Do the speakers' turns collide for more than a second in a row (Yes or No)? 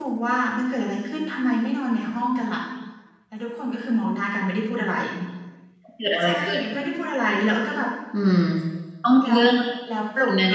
No